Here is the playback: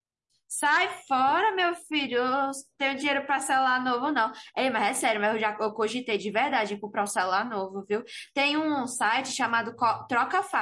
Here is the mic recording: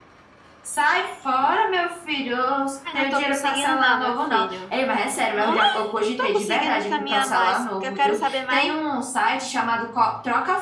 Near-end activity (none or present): present